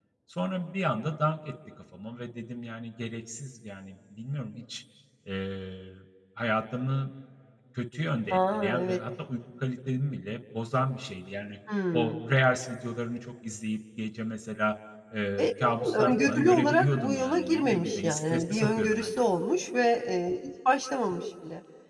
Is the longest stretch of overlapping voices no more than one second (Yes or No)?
No